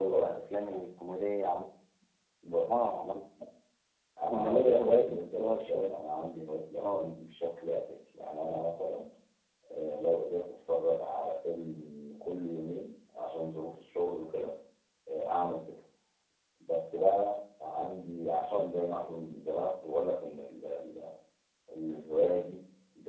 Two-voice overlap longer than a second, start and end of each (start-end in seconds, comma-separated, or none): 4.3-5.9